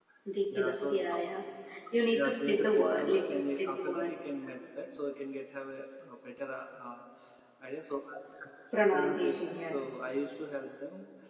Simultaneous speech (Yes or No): Yes